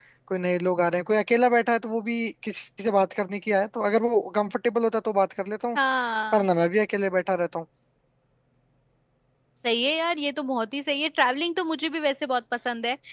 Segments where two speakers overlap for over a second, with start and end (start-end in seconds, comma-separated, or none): none